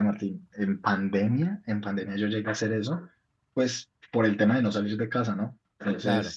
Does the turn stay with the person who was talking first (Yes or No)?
Yes